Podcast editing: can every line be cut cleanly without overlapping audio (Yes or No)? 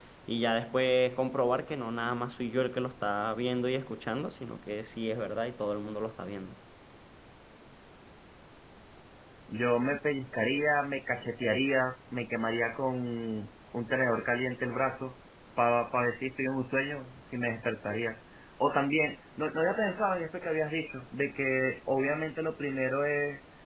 Yes